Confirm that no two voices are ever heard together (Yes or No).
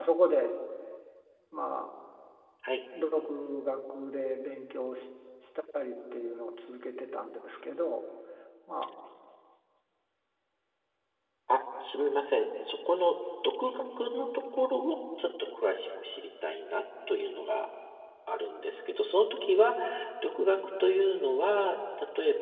Yes